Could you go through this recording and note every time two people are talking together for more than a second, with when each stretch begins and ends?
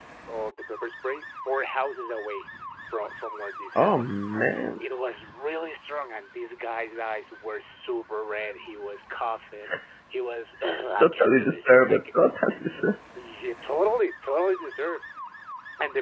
11.0-12.3

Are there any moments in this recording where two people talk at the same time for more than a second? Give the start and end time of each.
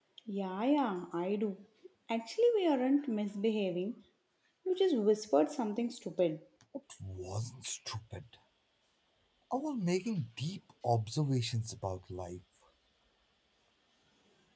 none

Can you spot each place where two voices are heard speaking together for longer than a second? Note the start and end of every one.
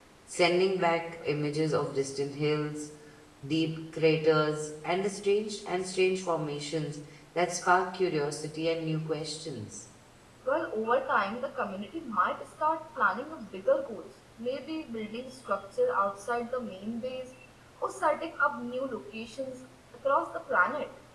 none

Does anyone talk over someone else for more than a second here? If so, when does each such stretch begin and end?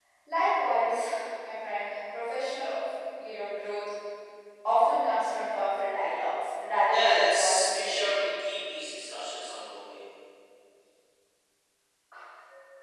6.9-8.2

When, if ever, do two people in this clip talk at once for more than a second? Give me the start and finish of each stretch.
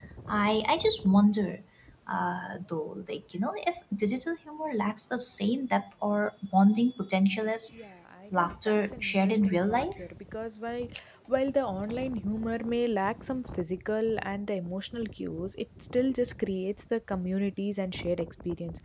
8.4-10.0

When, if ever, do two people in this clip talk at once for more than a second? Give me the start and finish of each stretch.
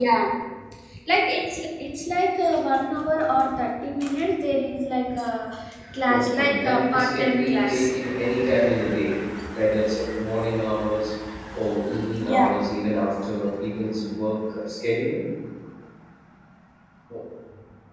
6.1-7.9

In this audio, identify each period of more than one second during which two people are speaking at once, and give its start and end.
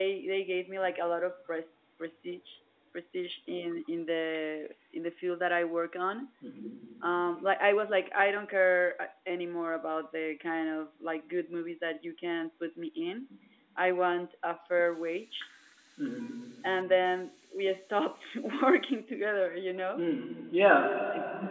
none

